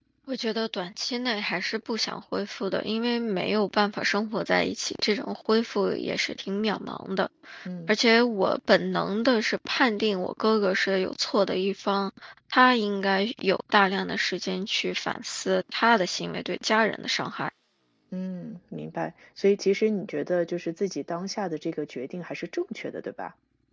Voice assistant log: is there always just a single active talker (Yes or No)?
Yes